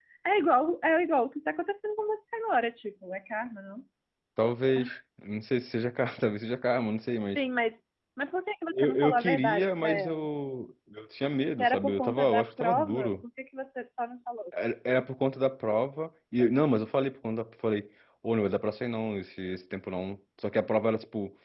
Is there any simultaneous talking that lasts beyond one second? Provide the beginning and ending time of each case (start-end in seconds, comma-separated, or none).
8.8-10.3, 11.6-13.1